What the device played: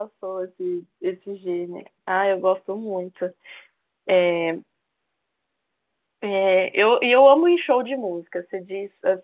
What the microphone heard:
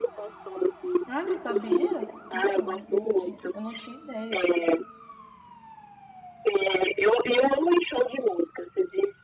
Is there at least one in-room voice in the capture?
Yes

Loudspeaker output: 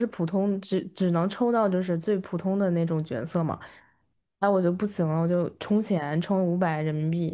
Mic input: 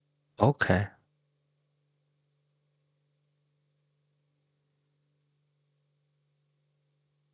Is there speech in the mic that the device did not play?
Yes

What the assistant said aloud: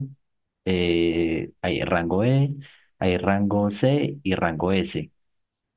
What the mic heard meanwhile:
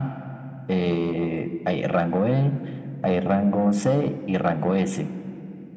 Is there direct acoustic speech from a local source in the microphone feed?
No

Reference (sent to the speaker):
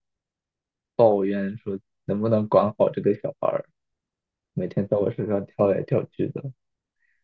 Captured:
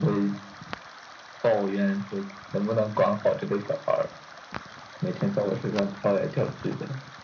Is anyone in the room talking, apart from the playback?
No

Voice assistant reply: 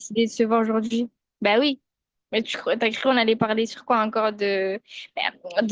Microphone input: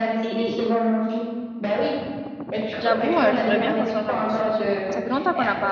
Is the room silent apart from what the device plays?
No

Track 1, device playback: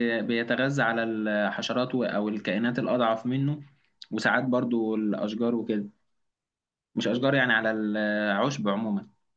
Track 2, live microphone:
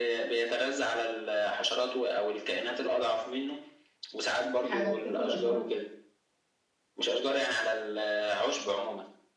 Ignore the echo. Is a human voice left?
Yes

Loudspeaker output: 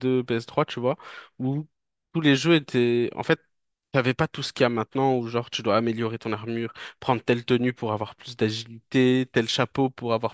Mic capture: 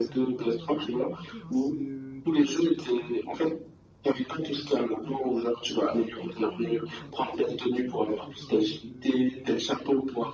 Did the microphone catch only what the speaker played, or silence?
No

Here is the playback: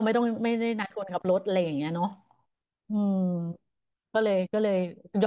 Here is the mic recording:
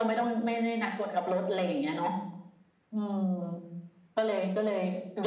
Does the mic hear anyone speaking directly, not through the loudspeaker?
No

